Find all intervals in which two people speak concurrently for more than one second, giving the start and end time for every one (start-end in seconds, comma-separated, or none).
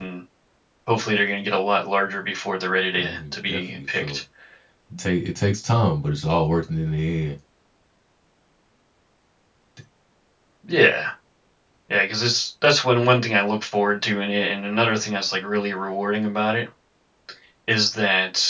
3.0-4.2